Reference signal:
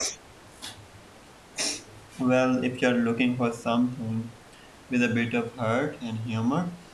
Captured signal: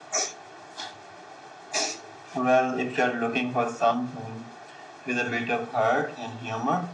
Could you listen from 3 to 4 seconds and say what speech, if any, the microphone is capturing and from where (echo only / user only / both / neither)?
echo only